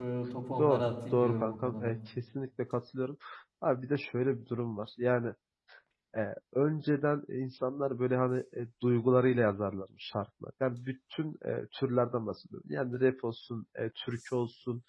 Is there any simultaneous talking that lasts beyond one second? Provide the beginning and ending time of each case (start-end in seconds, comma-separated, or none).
0.6-1.9